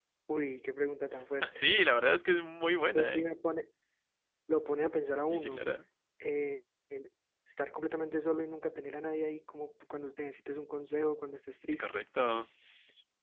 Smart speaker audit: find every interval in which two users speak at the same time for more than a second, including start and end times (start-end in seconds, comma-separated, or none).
none